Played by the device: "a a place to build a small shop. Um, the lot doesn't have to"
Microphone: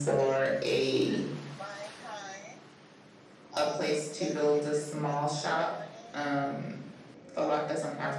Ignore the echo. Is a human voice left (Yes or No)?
Yes